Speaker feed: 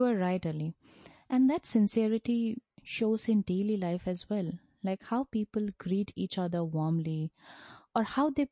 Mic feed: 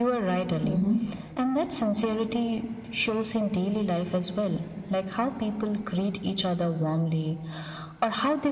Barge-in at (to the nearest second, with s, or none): 1 s